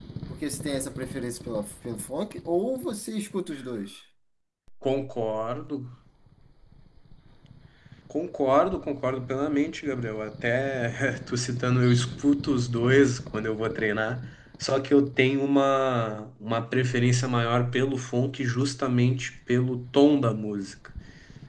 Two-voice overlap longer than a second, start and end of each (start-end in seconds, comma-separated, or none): none